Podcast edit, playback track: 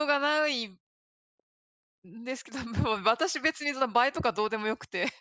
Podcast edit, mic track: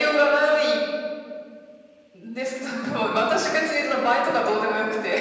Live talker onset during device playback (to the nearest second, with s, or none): none